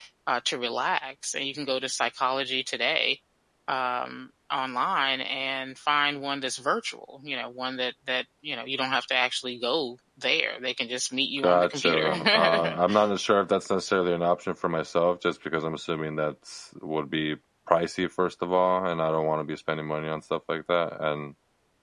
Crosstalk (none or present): present